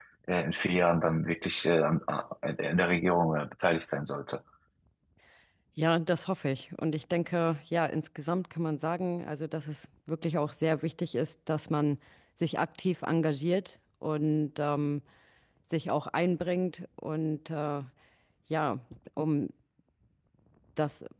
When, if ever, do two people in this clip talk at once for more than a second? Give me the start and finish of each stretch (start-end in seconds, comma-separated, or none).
none